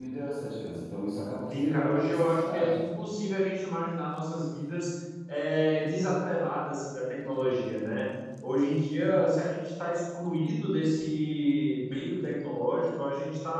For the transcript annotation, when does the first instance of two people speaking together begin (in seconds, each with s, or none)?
1.5 s